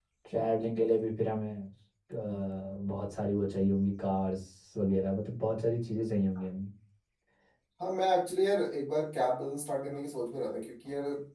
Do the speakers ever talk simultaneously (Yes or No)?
No